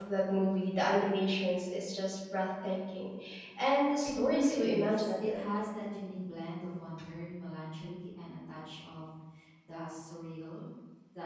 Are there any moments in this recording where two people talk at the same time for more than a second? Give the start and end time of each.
4.0-5.5

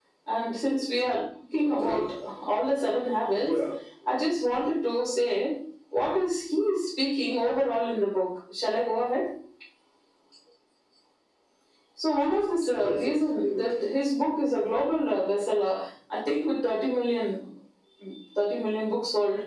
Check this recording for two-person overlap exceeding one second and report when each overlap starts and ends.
12.7-13.9

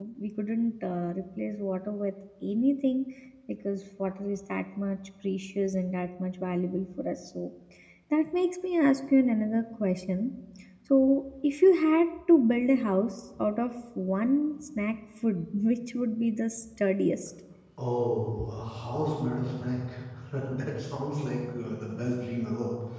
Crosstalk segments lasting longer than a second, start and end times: none

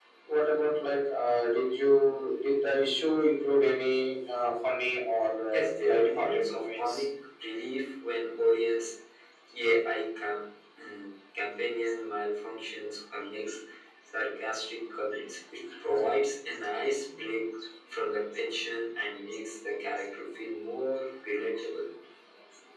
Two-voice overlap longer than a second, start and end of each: 5.5-7.0

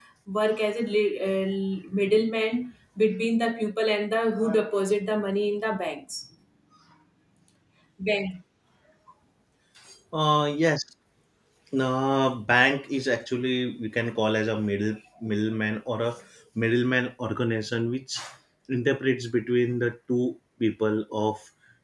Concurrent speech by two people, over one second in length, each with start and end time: none

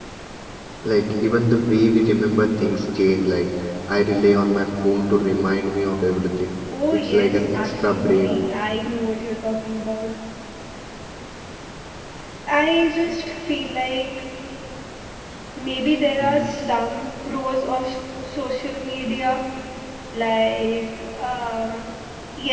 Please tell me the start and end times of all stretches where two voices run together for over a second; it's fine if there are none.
6.9-8.4

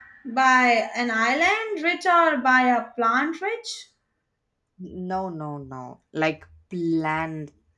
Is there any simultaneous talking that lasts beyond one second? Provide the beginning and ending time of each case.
none

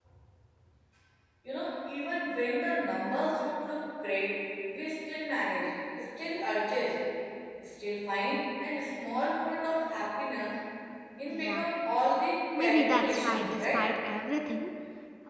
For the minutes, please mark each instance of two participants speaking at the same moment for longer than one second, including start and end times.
12.6-13.8

